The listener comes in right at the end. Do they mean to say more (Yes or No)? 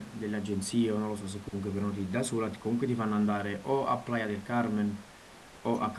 No